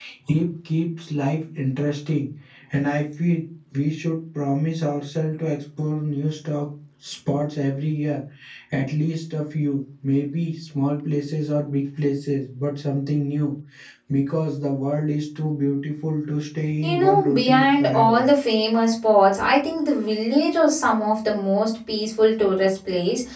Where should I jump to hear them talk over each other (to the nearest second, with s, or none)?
17 s